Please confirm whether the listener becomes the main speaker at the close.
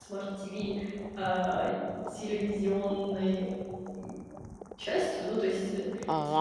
Yes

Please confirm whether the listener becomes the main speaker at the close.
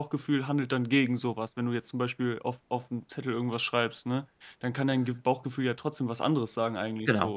Yes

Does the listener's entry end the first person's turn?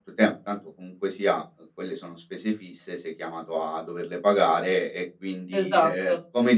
No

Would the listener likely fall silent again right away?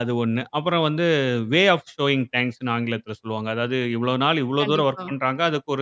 Yes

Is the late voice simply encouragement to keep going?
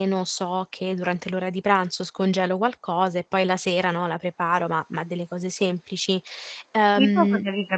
No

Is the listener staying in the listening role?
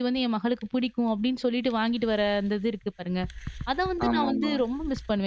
Yes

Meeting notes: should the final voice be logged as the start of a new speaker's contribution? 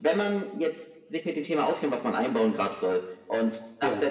No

